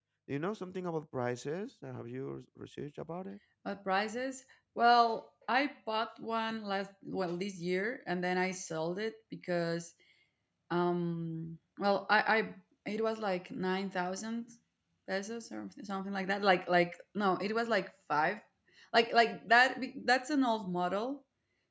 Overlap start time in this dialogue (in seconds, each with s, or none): none